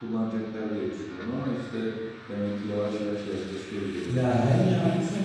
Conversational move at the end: taking over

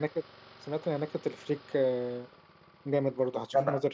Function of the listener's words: taking over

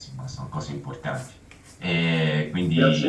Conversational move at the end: taking over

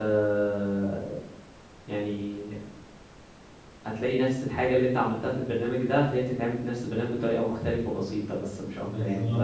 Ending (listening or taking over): taking over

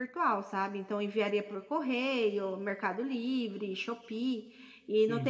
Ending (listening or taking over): listening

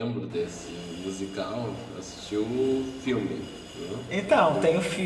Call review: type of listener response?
taking over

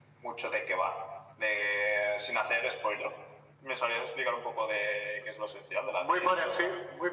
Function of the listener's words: taking over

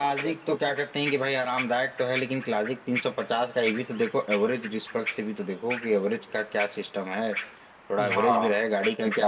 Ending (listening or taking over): listening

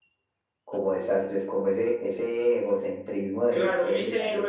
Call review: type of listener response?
taking over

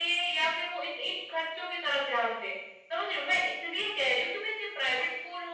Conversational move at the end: listening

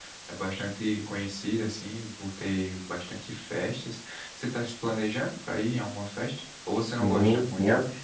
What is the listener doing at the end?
taking over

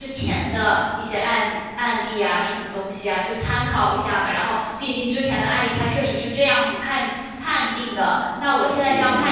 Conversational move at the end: listening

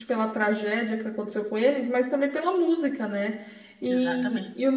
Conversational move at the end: listening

